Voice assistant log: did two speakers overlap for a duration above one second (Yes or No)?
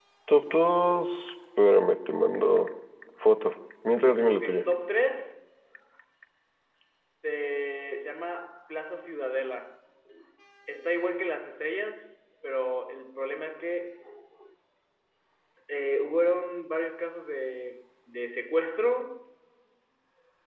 No